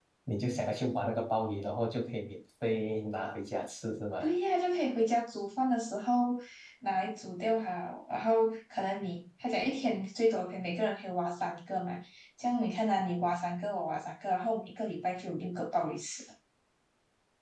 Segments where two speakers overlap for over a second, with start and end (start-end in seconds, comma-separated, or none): none